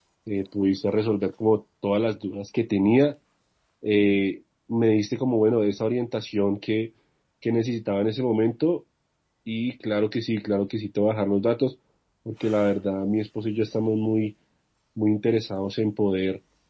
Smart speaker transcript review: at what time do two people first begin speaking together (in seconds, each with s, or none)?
none